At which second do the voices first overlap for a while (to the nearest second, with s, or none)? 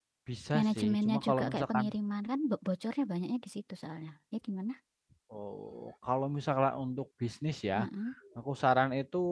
1 s